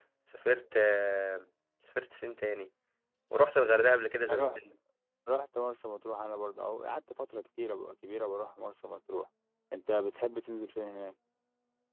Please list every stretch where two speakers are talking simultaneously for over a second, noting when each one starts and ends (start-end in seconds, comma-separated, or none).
none